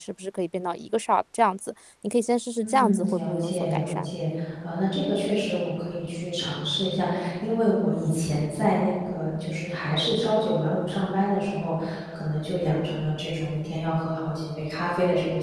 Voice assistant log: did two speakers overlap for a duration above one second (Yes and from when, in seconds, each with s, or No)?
Yes, from 2.6 s